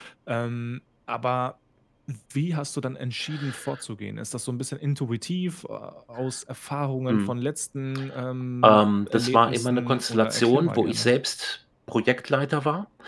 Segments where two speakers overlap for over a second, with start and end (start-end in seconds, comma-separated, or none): 8.6-11.1